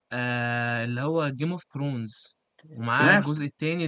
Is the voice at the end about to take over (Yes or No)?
No